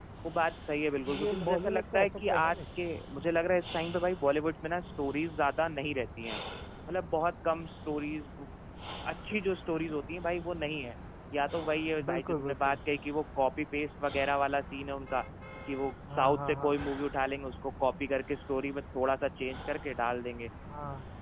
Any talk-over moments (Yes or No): Yes